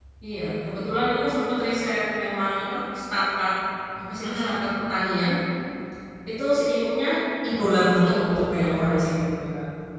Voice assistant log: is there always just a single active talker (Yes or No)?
No